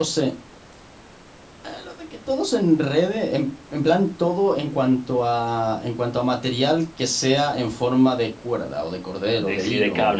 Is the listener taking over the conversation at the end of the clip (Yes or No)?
Yes